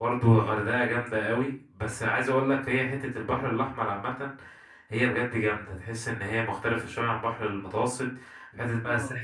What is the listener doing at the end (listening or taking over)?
listening